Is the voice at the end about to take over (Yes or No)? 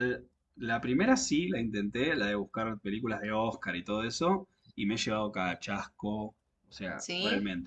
No